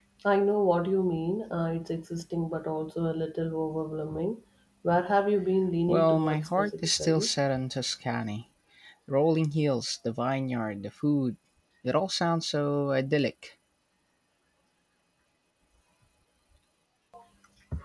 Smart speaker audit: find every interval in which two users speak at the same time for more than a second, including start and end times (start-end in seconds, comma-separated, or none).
5.9-7.3